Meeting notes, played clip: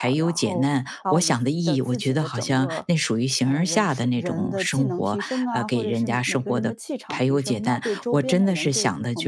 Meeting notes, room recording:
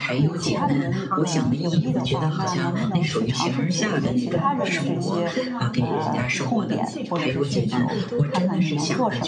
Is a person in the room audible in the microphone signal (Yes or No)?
Yes